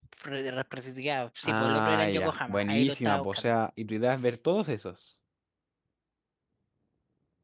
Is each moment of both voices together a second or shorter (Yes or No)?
No